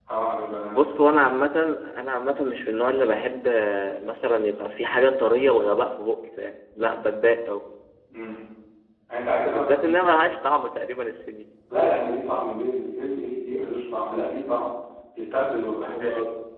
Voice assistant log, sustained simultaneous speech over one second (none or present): none